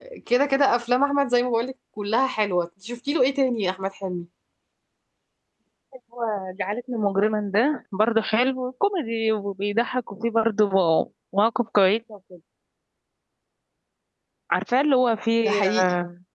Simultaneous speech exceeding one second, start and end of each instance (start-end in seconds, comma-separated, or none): none